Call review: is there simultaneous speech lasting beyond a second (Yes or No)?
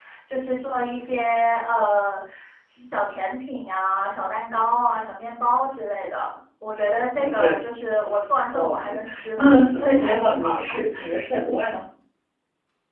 Yes